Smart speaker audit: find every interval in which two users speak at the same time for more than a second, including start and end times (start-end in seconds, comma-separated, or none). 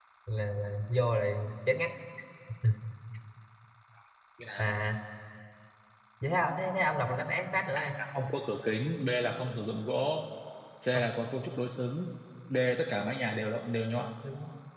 none